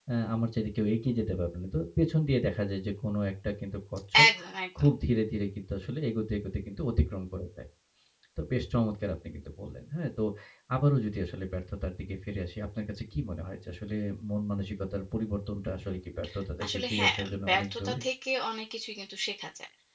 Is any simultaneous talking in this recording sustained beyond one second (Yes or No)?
Yes